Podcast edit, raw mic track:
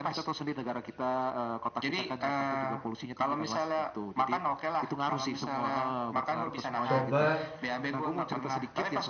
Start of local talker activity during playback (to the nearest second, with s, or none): 7 s